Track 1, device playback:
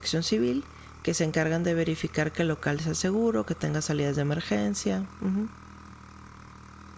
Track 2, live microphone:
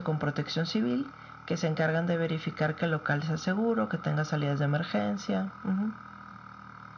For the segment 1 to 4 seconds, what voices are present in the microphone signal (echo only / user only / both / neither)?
echo only